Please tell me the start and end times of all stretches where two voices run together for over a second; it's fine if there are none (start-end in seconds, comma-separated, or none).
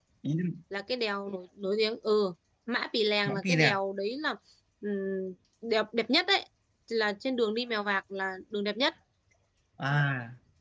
none